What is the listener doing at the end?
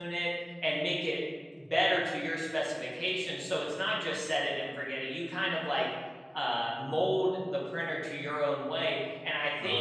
taking over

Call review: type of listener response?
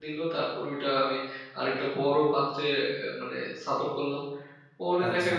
taking over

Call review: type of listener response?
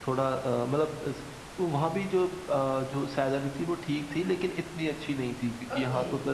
listening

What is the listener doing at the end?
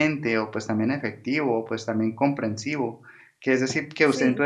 listening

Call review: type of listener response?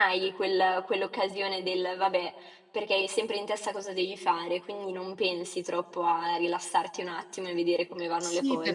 taking over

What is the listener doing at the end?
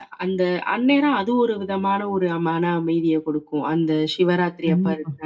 listening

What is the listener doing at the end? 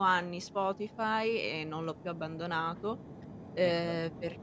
listening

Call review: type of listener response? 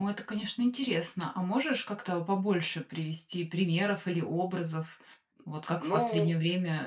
listening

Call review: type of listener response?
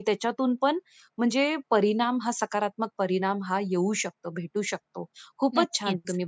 listening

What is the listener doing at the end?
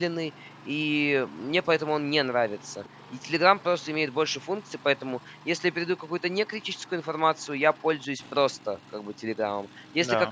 listening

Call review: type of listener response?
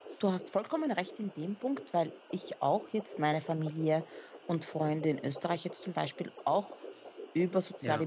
listening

